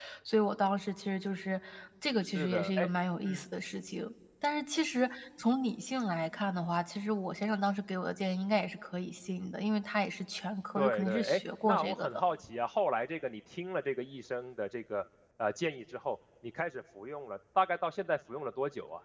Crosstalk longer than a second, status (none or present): present